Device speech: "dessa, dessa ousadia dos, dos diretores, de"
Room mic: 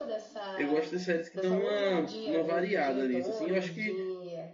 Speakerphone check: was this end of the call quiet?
No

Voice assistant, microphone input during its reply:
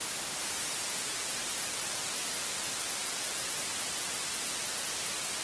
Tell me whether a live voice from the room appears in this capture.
No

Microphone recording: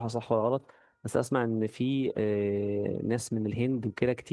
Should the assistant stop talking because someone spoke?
Yes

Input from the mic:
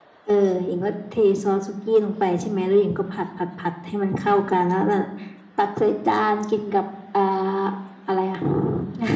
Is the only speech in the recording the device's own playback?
Yes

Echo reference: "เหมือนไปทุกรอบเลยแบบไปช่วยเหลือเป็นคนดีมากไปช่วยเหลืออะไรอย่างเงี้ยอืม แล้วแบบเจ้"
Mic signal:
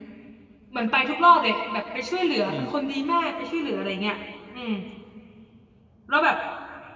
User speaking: Yes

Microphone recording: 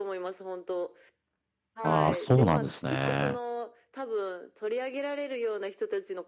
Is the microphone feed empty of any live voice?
No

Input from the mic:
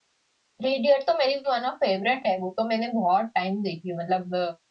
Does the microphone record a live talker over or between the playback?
Yes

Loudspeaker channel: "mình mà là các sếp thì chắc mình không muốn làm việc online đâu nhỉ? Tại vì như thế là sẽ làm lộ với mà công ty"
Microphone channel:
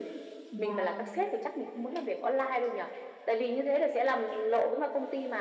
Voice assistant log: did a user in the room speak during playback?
Yes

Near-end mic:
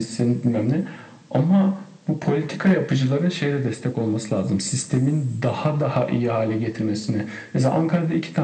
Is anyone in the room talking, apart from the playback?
No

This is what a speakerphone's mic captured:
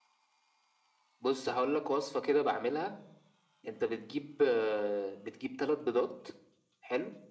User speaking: No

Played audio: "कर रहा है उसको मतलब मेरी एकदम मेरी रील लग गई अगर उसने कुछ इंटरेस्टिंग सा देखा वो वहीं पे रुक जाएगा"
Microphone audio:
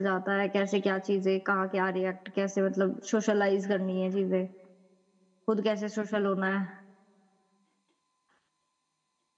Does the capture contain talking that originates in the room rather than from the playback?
Yes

